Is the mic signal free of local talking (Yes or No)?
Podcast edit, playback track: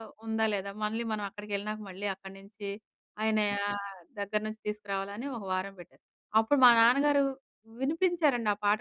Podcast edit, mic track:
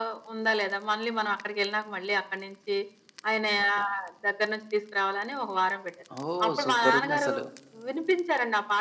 No